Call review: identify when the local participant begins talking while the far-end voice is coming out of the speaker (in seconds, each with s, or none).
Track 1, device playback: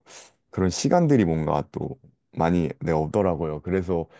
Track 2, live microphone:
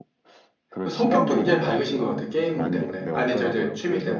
0.8 s